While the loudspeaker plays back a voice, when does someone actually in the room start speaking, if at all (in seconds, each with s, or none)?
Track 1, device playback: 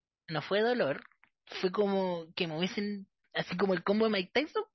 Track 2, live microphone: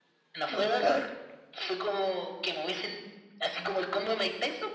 0.5 s